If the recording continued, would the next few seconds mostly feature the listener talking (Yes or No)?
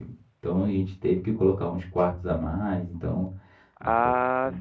Yes